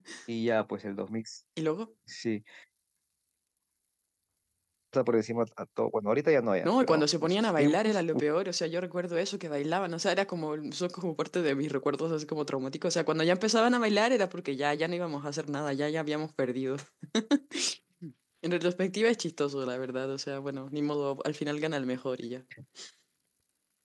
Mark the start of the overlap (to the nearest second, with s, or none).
7 s